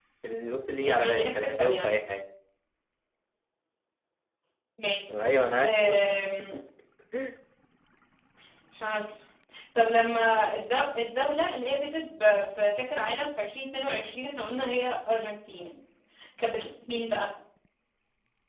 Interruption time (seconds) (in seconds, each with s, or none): 0.8 s